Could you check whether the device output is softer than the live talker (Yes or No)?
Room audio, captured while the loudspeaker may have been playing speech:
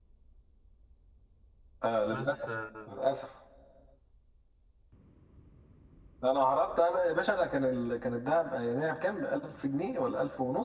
No